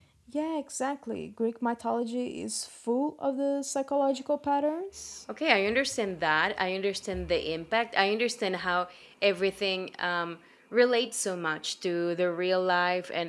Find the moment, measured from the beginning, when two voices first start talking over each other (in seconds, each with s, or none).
none